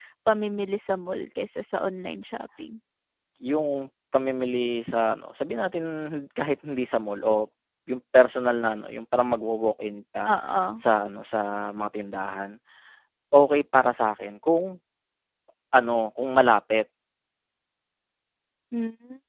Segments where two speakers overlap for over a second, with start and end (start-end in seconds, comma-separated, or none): none